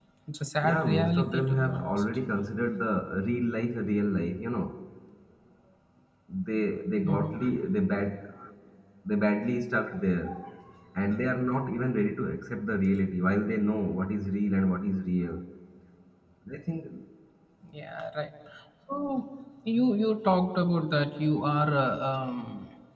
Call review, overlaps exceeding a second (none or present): present